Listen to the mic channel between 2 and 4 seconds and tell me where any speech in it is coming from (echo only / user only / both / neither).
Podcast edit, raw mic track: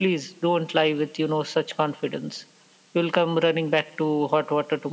echo only